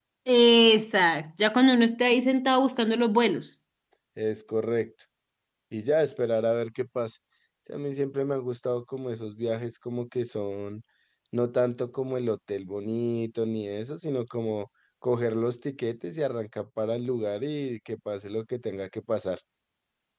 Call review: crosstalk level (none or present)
none